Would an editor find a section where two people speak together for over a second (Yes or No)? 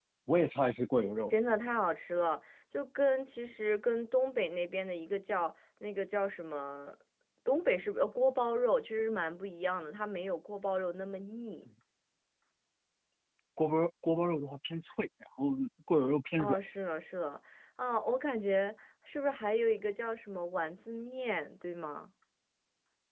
No